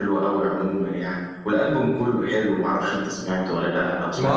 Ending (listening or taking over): taking over